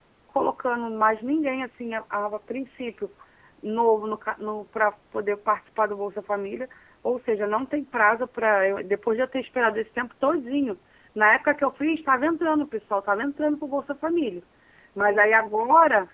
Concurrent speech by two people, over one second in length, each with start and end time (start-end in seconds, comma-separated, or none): none